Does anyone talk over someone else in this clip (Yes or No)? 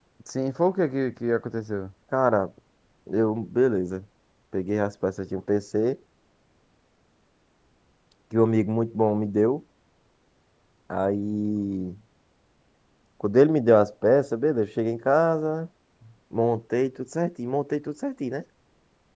No